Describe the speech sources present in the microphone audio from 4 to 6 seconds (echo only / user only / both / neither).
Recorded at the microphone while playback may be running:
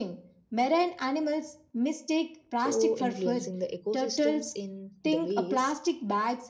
both